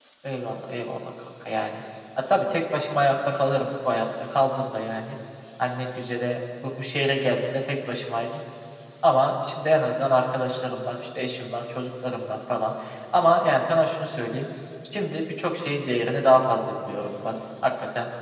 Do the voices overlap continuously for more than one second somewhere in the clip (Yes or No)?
No